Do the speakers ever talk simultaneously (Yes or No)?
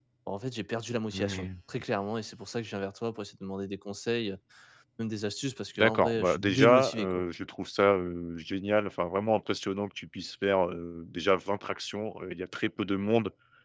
Yes